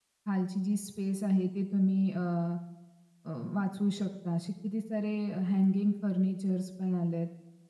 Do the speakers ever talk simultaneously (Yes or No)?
No